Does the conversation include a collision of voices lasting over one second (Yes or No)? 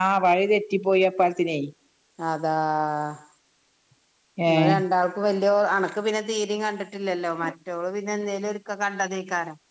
No